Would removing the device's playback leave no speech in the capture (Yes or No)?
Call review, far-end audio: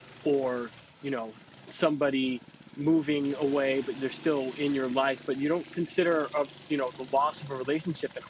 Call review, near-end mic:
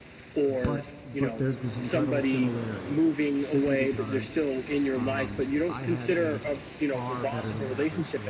No